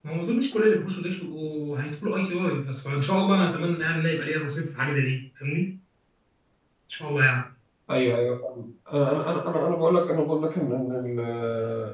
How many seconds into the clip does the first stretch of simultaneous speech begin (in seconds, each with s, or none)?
none